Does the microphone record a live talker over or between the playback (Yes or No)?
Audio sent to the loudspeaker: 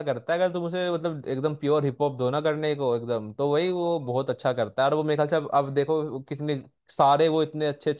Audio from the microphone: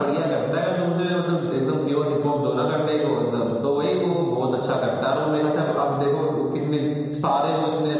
No